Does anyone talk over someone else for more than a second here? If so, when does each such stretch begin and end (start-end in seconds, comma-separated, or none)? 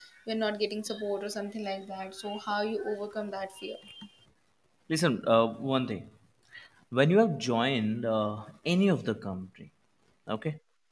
none